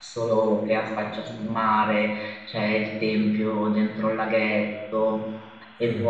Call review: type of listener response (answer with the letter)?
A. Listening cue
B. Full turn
A